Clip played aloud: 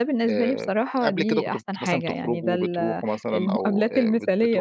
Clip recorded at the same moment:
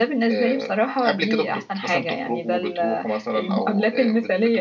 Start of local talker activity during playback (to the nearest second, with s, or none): none